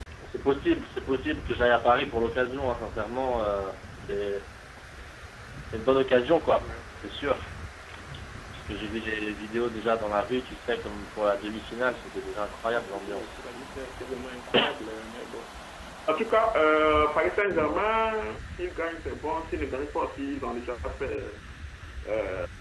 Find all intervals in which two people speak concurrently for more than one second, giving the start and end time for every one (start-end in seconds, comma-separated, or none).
none